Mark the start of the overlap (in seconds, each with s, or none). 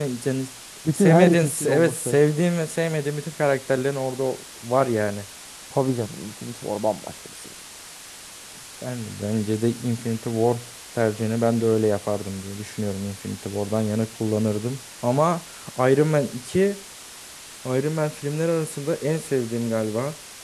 0.9 s